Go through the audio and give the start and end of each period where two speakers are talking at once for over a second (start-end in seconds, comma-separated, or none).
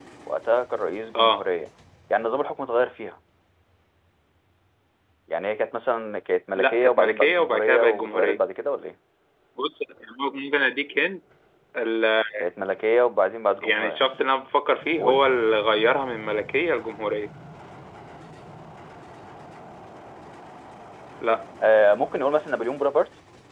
6.5-8.4